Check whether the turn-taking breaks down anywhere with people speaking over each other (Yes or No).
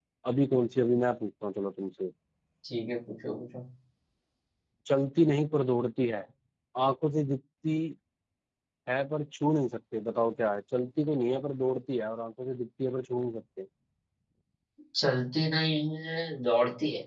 No